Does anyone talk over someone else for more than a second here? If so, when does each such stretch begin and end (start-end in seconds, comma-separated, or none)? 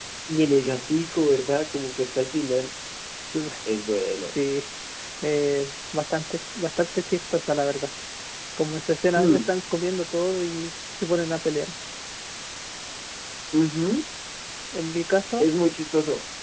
none